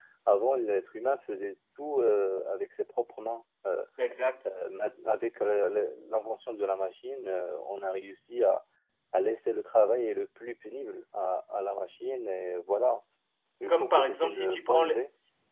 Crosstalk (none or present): present